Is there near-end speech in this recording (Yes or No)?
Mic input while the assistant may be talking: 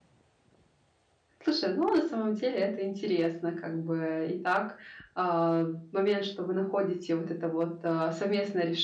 Yes